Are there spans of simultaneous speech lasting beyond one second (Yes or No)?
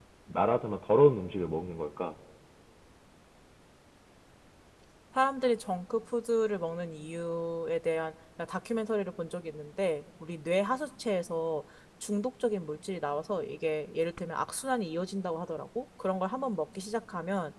No